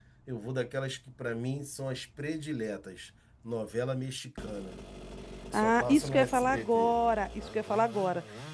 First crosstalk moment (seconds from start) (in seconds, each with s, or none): 5.5 s